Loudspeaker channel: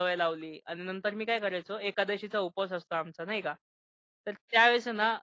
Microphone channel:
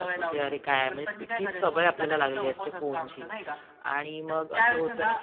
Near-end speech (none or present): present